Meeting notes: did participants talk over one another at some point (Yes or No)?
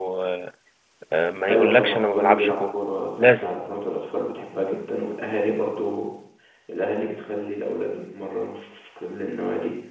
Yes